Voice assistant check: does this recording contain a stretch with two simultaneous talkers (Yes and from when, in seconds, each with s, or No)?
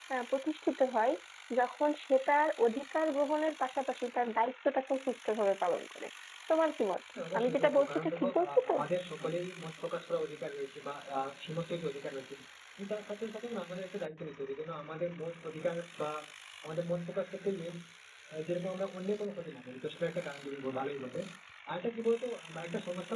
Yes, from 7.3 s